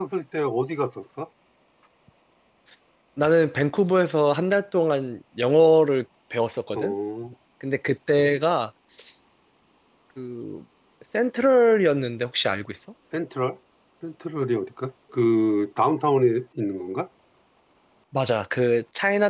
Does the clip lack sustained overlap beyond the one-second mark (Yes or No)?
Yes